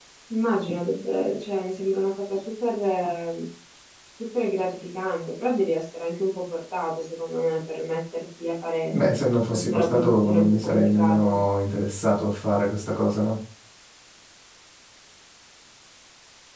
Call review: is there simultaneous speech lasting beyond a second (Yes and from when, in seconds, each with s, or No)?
Yes, from 9.5 s